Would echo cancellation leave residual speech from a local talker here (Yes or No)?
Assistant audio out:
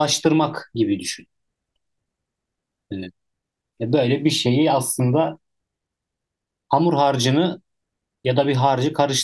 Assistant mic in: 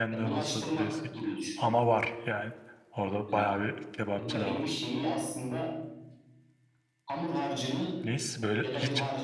Yes